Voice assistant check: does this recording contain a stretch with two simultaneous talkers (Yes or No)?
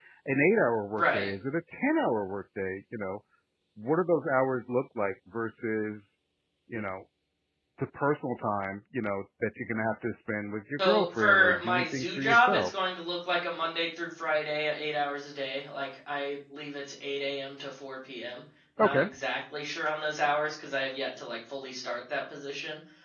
Yes